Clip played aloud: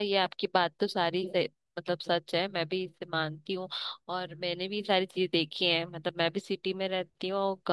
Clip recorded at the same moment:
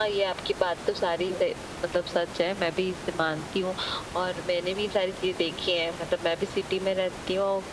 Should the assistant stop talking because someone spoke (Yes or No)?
No